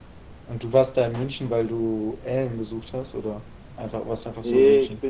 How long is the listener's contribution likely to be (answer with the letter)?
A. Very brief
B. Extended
B